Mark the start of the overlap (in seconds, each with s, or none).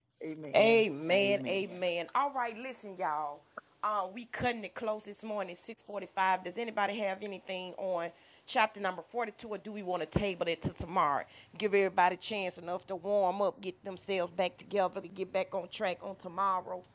0.5 s